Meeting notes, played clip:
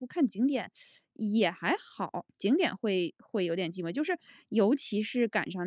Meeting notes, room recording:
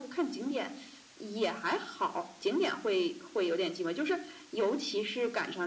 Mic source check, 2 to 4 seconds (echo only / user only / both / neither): echo only